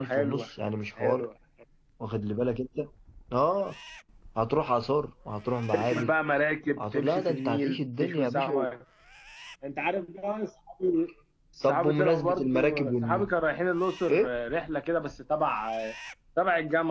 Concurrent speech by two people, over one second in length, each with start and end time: 6.8-8.7, 11.6-13.3

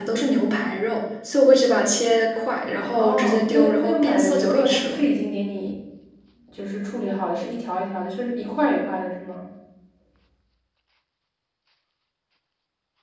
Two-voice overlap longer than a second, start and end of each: 3.0-5.0

